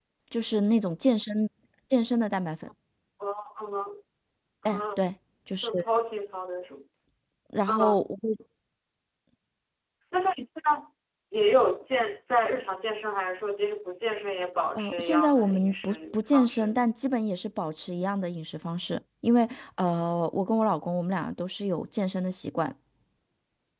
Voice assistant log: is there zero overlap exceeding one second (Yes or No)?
No